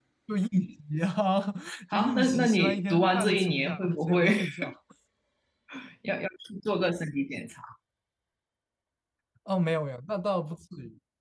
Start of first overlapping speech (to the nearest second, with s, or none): 2 s